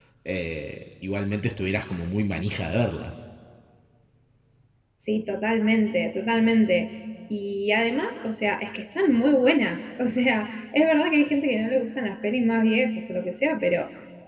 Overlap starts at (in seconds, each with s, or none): none